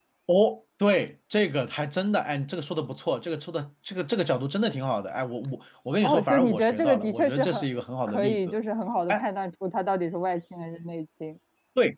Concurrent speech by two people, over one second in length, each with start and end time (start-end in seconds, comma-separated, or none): 6.0-7.6